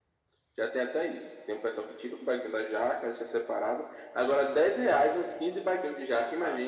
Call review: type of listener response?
taking over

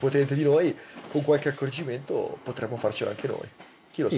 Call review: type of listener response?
taking over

